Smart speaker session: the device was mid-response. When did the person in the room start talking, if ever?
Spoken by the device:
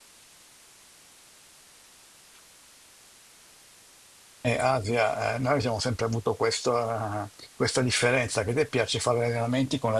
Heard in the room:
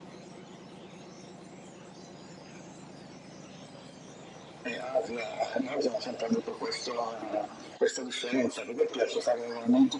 none

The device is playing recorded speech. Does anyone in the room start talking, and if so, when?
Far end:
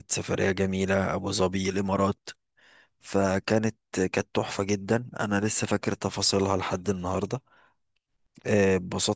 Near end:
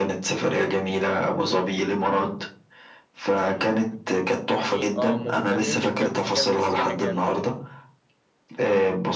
3.4 s

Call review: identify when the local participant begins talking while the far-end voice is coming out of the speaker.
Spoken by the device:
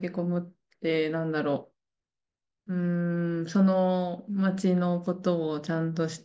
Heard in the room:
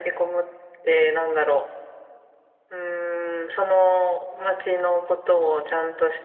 none

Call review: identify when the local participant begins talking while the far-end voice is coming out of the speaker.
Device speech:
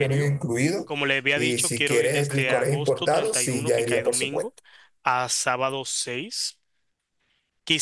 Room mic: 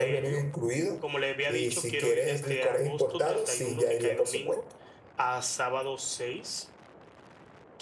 none

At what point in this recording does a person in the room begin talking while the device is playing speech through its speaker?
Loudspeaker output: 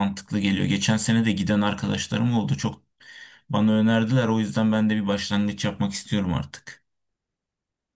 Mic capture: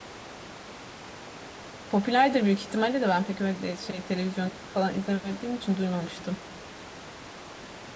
1.9 s

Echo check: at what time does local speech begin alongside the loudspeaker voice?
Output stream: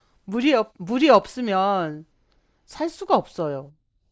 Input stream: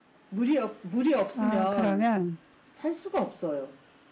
1.4 s

